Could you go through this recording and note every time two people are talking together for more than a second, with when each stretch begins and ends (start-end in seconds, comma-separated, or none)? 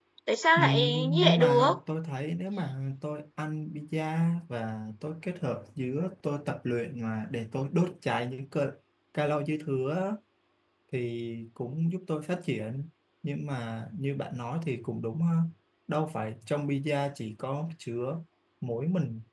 0.6-1.8